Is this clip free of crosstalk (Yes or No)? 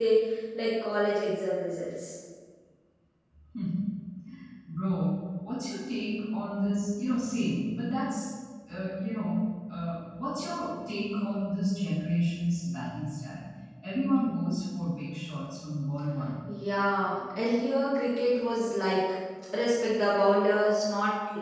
Yes